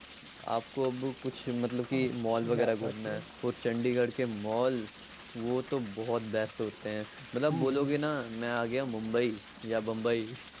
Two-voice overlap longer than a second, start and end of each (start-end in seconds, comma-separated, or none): 2.0-3.2